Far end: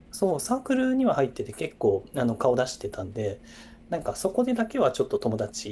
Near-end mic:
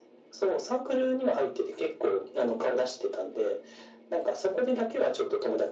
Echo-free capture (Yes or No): No